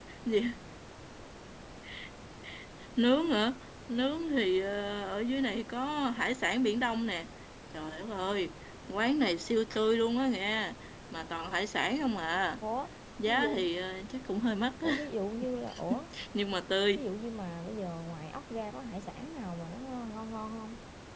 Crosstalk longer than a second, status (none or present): none